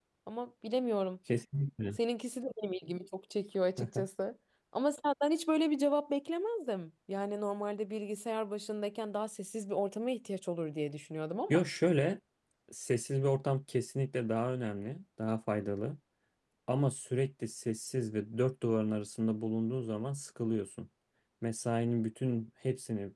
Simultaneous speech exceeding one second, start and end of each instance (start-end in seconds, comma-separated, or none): none